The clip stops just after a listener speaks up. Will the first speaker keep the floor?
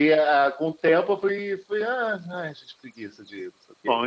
No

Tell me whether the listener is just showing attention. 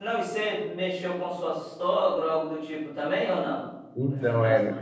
No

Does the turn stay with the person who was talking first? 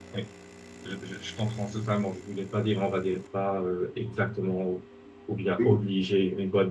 Yes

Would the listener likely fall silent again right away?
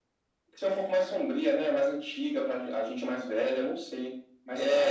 No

